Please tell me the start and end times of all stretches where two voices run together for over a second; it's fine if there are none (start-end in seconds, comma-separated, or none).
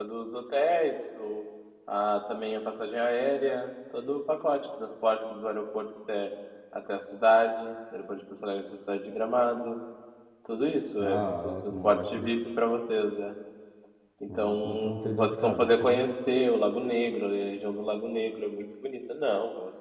11.0-12.3, 14.3-16.0